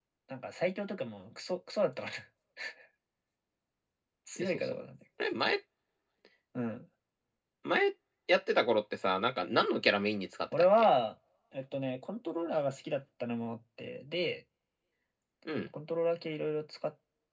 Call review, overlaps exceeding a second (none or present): none